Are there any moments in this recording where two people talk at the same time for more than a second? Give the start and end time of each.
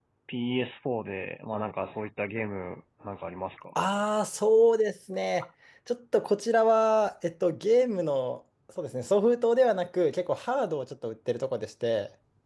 none

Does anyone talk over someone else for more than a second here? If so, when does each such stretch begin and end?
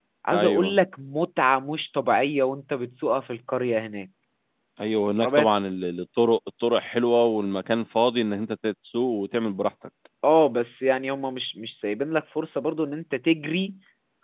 none

